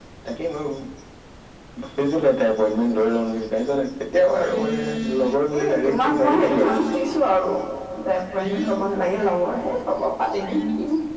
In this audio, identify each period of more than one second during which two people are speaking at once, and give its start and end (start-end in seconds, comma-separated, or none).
5.2-6.8